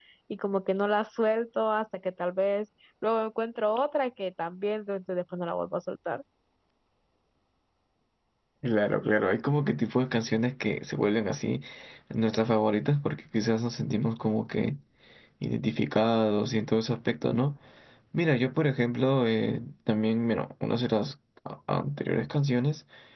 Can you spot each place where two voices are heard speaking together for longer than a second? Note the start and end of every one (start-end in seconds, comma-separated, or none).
none